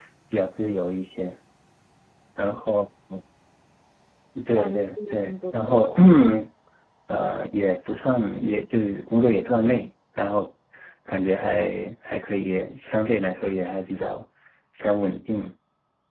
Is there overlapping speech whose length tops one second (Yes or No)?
Yes